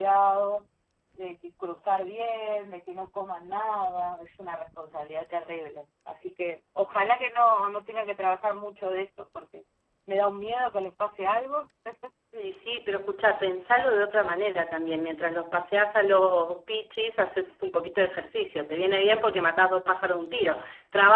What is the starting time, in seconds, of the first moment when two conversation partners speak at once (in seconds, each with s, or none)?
none